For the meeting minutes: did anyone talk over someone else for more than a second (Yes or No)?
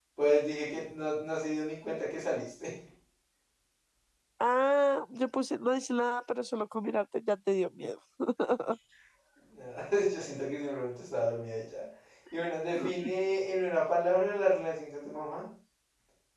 No